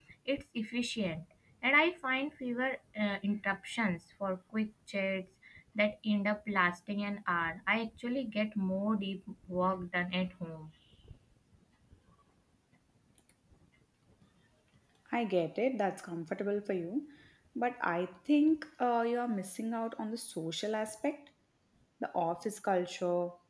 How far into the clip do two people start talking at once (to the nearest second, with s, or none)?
none